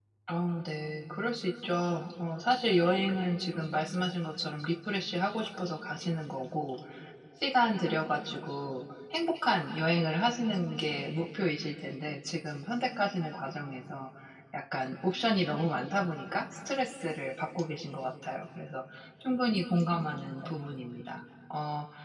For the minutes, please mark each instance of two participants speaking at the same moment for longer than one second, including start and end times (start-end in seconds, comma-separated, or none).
none